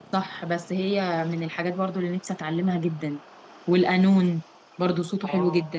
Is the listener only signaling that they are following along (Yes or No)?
No